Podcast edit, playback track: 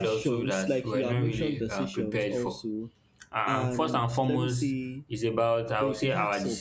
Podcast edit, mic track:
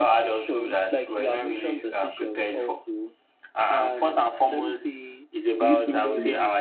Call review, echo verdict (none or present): present